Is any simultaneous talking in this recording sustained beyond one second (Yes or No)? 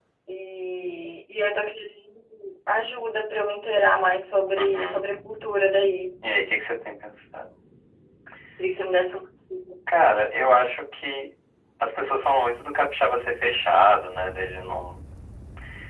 No